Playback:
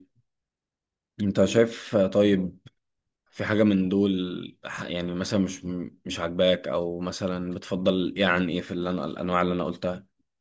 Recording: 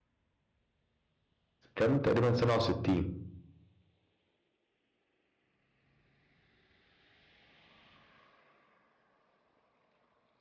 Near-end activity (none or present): present